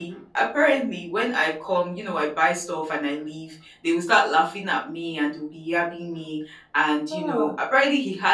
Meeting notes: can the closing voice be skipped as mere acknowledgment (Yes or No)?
Yes